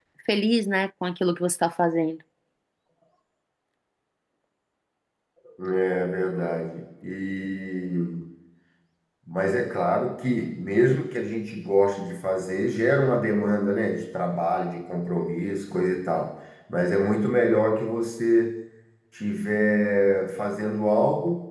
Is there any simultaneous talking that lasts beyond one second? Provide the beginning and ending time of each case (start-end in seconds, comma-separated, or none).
none